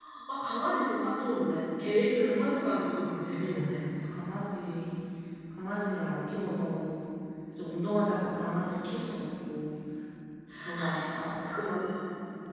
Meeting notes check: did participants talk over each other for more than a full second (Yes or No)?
No